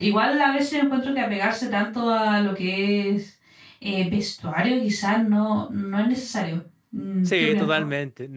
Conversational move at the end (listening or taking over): taking over